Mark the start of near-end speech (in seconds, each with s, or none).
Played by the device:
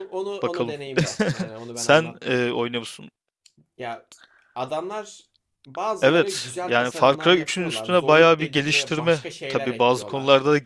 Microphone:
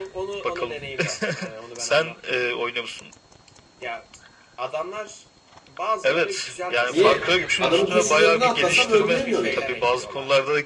6.9 s